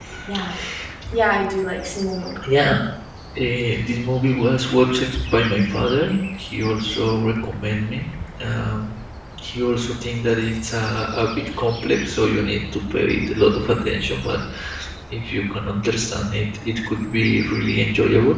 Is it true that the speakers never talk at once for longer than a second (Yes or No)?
Yes